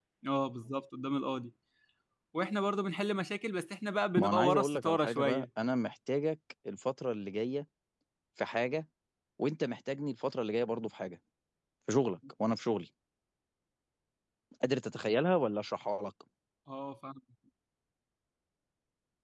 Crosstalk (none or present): present